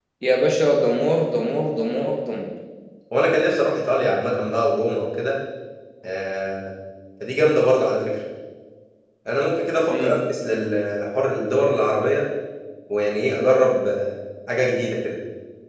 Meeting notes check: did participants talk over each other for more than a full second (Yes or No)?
No